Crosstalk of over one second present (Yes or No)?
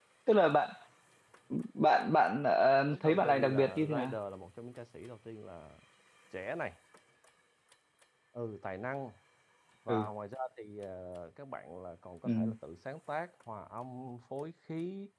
Yes